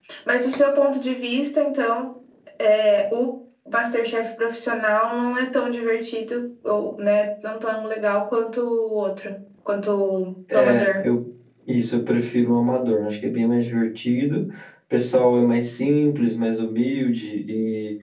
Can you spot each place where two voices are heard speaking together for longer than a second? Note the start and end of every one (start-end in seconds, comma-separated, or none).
none